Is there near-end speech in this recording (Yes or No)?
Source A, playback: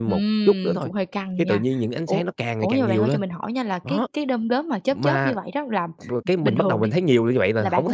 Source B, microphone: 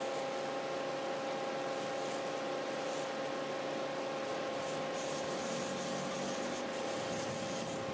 No